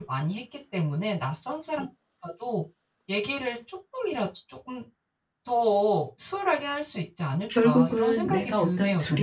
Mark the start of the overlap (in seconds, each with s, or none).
7.5 s